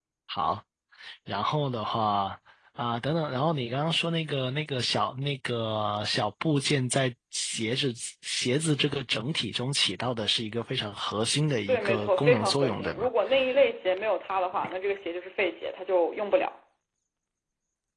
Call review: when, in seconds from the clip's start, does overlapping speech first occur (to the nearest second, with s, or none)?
12 s